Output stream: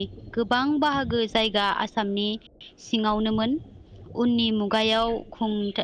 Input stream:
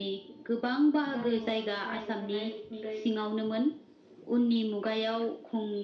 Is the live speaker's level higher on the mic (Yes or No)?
No